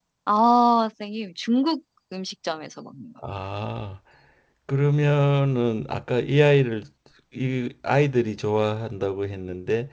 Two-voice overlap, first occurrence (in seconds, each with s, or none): none